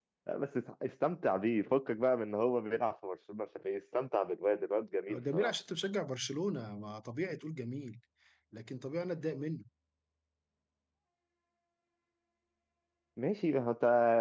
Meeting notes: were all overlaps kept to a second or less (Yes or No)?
Yes